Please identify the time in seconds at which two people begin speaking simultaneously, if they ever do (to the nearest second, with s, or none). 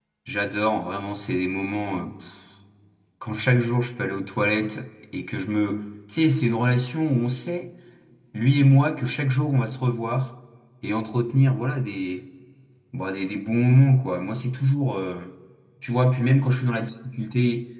none